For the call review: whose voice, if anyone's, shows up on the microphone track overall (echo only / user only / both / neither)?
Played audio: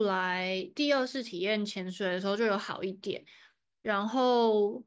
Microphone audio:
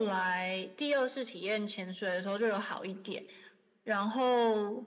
echo only